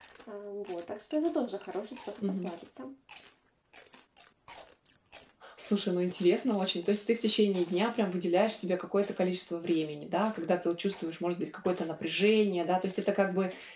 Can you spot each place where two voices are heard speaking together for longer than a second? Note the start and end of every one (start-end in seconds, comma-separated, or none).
none